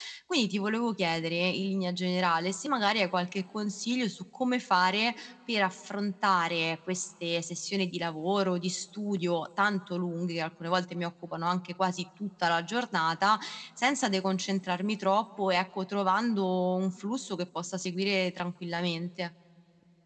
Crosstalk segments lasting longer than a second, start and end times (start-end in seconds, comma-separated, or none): none